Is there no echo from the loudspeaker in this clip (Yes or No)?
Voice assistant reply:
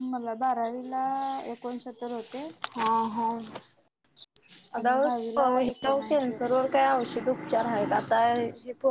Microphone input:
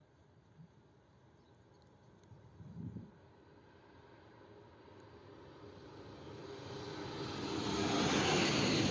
Yes